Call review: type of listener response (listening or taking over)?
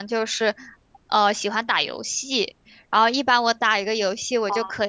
listening